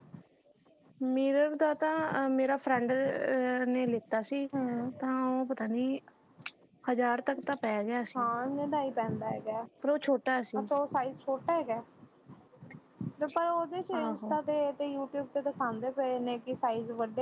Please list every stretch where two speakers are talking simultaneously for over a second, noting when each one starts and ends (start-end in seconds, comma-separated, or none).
none